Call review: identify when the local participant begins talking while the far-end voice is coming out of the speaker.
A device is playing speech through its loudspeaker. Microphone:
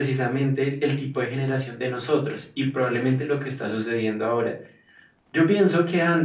none

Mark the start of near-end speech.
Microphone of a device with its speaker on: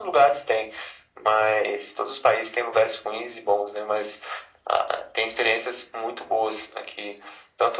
none

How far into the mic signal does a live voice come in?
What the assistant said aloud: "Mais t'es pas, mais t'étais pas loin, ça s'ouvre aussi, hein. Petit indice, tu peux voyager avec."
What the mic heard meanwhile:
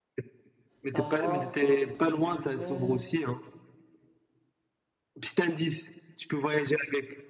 1 s

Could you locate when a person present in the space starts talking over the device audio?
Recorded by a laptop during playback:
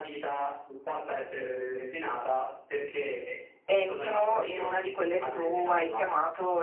4 s

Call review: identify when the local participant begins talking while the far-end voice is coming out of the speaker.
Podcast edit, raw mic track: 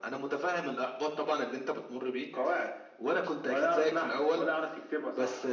none

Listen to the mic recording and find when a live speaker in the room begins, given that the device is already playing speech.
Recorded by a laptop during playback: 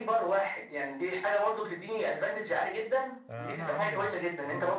3 s

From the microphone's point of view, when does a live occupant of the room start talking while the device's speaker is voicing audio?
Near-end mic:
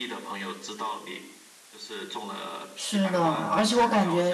3 s

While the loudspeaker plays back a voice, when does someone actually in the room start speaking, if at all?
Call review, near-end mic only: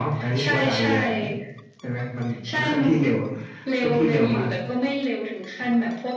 none

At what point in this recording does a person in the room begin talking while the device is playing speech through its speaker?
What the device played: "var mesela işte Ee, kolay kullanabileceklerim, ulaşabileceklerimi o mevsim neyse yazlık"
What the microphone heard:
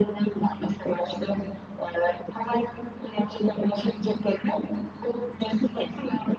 none

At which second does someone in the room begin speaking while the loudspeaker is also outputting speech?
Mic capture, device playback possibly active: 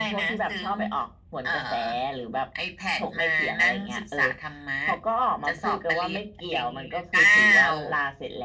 none

